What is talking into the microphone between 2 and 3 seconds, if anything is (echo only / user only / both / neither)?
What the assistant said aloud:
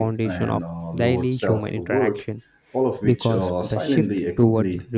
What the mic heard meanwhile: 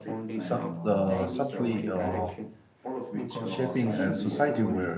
both